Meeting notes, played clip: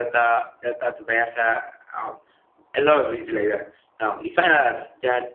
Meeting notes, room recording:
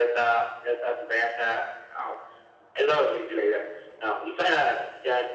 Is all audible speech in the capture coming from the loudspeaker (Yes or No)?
Yes